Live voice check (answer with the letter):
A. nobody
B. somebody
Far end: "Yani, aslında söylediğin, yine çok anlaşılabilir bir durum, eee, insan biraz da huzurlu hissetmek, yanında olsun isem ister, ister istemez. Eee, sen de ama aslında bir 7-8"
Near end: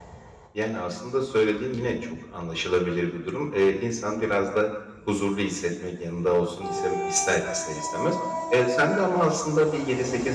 A